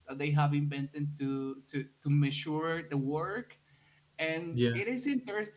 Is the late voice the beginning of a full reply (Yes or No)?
No